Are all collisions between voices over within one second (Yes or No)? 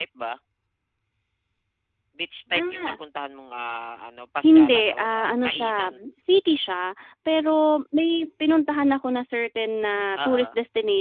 No